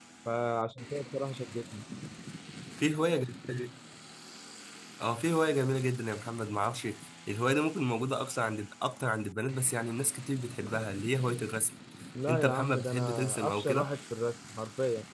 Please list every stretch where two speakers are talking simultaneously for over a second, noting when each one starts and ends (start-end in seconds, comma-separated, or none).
12.3-13.9